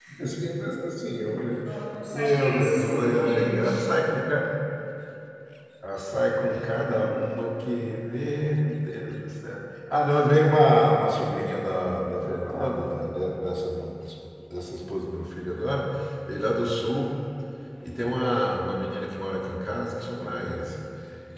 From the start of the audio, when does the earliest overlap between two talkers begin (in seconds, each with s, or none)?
2.1 s